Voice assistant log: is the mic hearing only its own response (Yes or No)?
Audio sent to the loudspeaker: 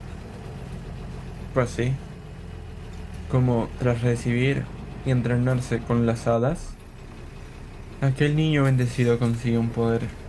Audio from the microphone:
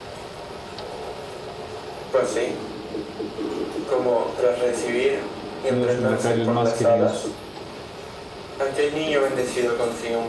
No